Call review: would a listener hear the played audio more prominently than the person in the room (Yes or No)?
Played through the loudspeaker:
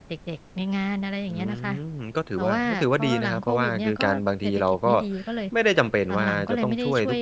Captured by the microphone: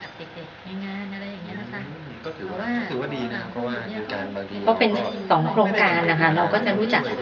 No